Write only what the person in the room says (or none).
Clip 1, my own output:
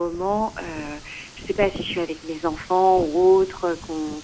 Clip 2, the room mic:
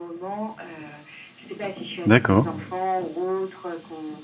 D'accord.